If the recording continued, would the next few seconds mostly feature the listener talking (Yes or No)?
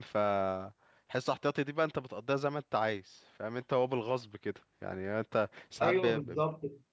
No